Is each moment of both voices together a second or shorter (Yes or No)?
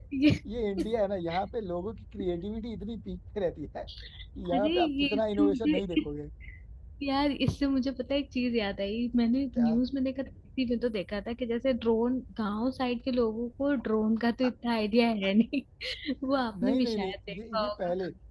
No